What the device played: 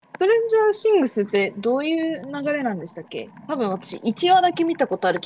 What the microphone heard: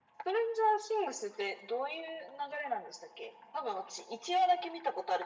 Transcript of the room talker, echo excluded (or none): none